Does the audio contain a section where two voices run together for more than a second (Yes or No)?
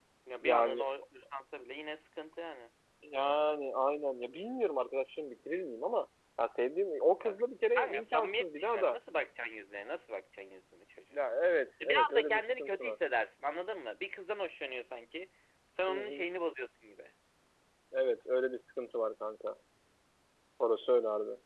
Yes